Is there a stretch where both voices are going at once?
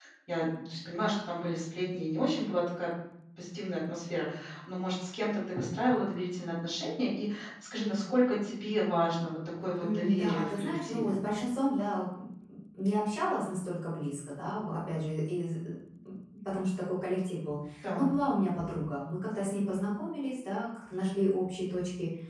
Yes, from 9.8 s

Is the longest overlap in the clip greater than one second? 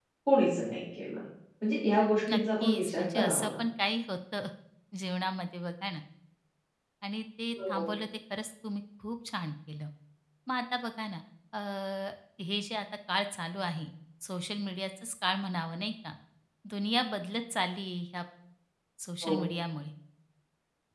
Yes, from 2.3 s

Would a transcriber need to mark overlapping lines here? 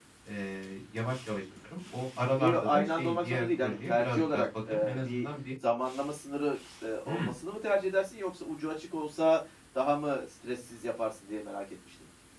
Yes, from 2.4 s

